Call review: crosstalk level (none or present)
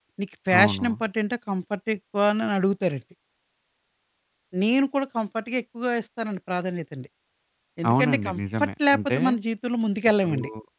present